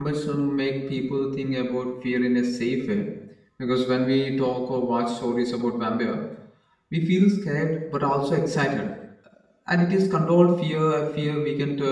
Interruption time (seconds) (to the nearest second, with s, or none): none